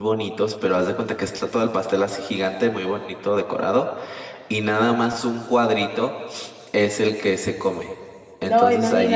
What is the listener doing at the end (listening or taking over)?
listening